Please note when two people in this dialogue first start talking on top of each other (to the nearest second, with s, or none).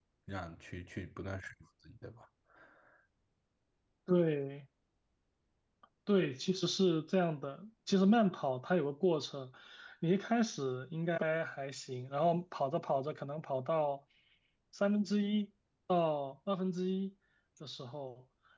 none